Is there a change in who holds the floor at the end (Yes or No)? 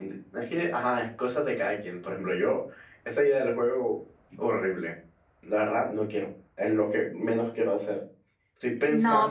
Yes